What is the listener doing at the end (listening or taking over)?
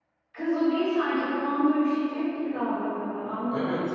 taking over